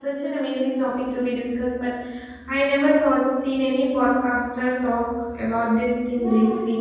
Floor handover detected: Yes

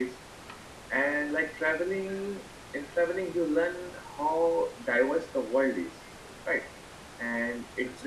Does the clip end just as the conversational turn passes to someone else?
No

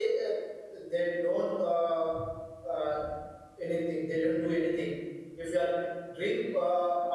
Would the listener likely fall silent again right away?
Yes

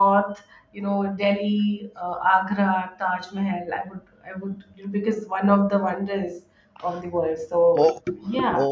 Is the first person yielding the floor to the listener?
Yes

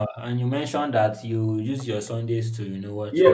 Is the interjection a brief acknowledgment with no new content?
No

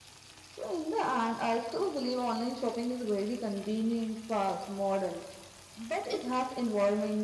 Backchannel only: Yes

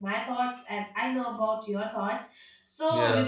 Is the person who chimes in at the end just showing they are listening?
Yes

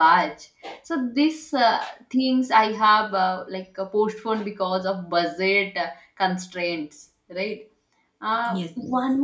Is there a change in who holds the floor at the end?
No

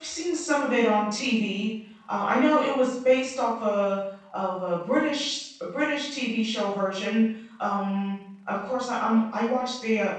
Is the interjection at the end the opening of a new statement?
No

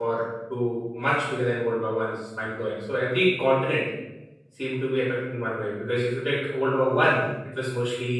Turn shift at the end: No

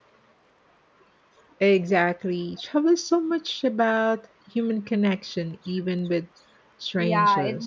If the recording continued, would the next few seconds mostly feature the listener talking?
Yes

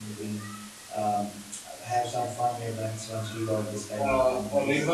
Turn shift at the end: Yes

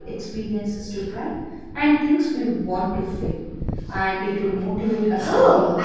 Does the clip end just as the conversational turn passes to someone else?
Yes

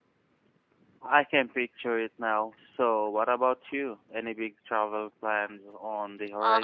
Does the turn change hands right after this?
Yes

